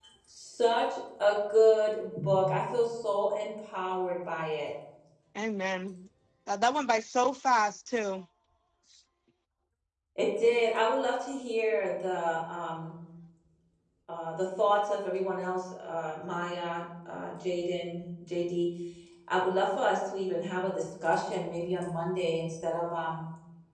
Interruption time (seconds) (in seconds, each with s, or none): none